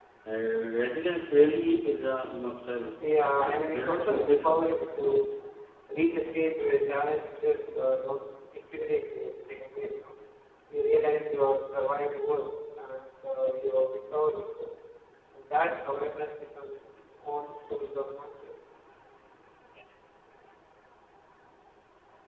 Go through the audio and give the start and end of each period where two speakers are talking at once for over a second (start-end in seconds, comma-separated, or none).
3.4-4.8